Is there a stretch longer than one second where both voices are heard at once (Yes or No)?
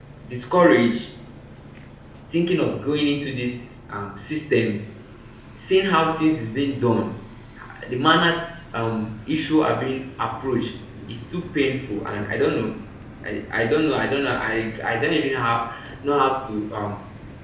No